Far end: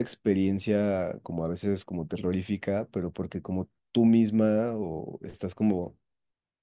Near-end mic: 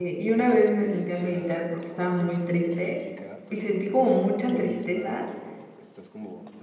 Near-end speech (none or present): present